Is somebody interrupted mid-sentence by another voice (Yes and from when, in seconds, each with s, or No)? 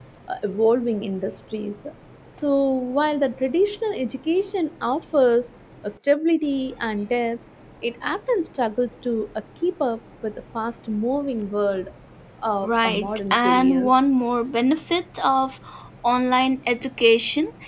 Yes, from 12.6 s